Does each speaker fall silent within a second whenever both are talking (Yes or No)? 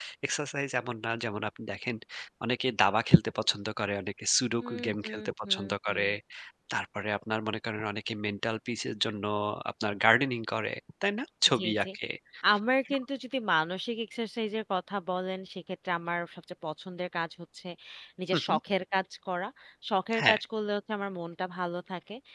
No